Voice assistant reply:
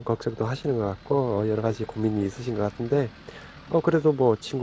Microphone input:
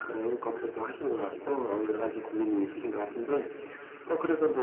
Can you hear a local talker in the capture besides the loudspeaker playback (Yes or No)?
Yes